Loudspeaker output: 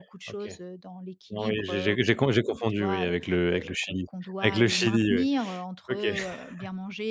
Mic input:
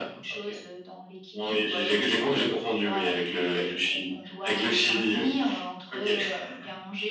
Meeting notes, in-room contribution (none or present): none